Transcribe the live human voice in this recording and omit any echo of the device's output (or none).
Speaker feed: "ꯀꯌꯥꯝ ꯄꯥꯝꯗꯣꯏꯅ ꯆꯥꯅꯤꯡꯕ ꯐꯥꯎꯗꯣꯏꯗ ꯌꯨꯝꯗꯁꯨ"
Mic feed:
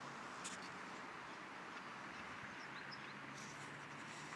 none